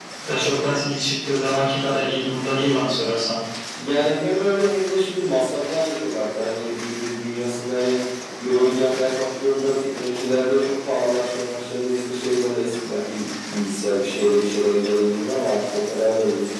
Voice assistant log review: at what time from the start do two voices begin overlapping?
none

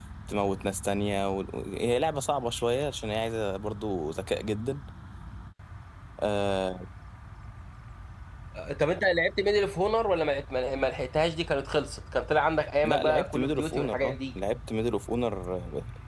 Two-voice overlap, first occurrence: 12.8 s

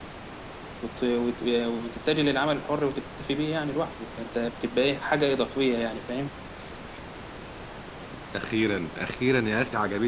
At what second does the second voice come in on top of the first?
none

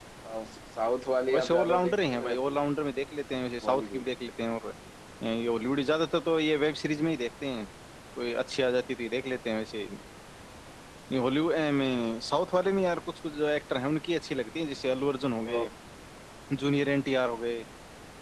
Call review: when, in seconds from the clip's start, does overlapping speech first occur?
1.3 s

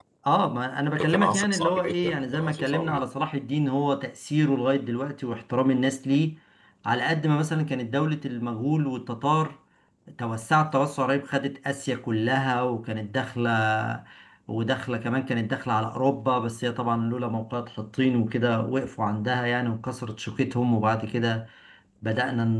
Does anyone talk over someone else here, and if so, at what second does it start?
1.0 s

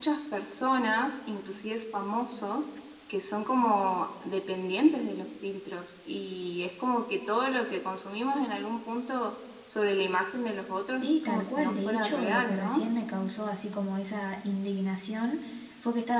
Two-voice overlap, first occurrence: 10.9 s

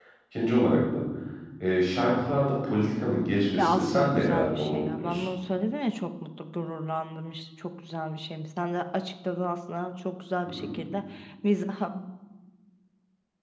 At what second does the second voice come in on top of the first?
3.6 s

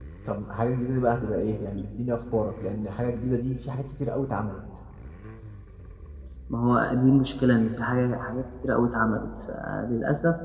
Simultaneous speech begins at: none

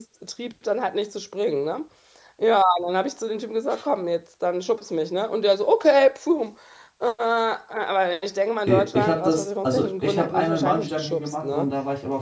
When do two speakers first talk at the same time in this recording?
8.7 s

